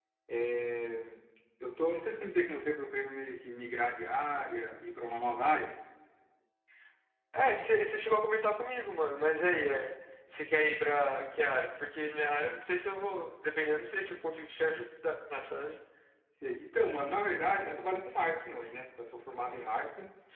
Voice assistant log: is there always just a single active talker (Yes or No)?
Yes